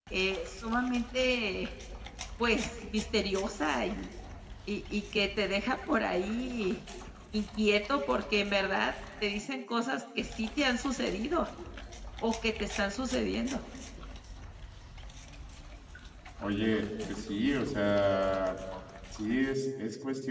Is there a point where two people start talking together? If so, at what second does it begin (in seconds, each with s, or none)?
none